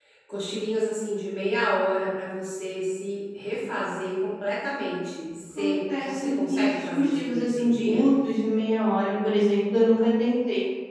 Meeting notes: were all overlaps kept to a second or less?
No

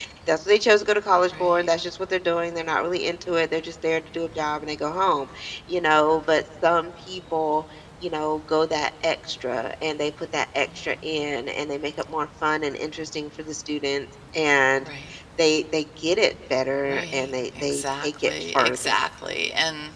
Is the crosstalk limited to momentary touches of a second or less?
No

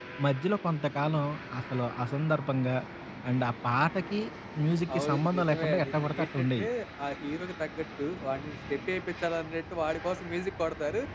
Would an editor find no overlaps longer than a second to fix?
No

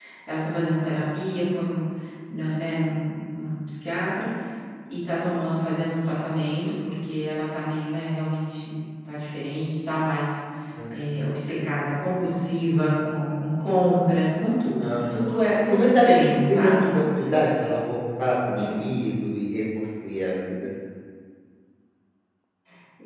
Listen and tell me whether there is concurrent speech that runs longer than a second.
Yes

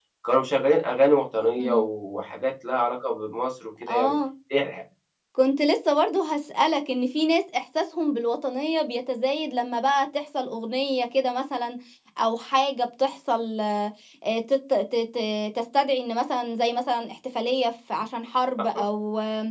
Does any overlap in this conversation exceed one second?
No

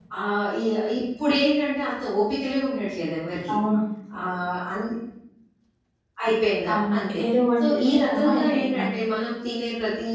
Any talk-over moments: Yes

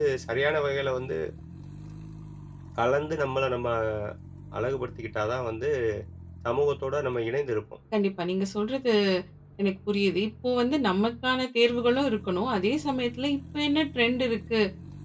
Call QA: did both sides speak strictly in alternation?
Yes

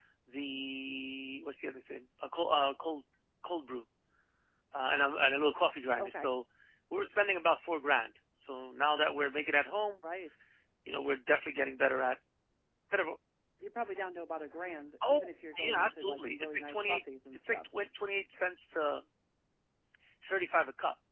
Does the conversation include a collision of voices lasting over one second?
Yes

